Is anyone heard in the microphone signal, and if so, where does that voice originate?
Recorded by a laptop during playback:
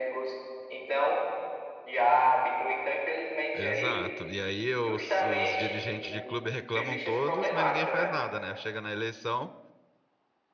both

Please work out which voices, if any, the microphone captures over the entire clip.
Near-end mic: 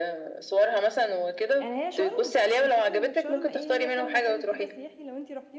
both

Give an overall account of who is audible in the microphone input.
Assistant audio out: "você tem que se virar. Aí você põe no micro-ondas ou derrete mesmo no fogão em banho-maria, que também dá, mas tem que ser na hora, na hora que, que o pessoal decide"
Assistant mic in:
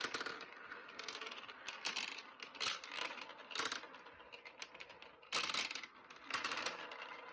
neither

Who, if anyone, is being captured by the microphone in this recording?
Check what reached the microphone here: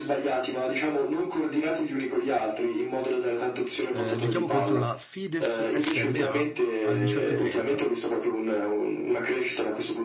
both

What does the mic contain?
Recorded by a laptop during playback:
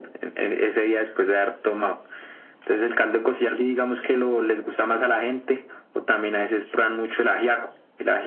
echo only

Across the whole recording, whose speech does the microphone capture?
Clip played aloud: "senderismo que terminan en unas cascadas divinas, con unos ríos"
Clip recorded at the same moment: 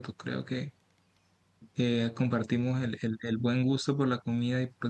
user only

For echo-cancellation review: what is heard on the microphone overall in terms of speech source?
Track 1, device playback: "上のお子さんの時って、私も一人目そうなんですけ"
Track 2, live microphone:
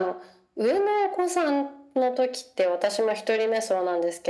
echo only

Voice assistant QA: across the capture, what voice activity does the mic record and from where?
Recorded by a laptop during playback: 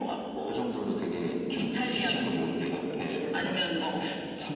both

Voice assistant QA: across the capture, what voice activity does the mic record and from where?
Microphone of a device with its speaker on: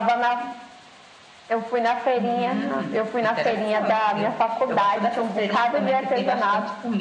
echo only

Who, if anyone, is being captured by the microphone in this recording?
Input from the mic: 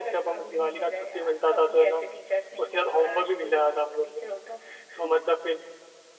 echo only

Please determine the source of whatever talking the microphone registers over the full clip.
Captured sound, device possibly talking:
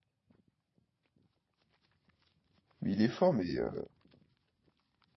user only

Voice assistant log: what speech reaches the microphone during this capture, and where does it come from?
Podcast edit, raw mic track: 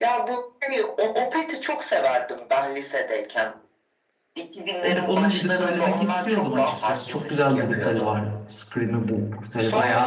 both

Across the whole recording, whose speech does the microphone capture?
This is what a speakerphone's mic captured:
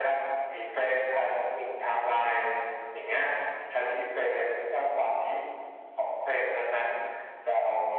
echo only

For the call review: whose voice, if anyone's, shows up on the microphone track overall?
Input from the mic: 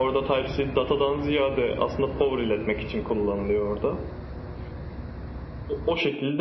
echo only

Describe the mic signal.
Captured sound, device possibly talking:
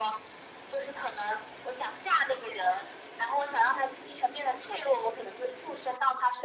echo only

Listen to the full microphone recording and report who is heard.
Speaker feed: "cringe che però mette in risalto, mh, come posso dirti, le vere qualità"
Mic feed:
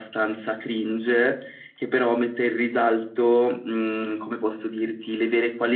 echo only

